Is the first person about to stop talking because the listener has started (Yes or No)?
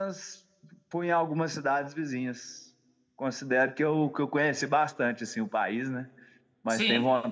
No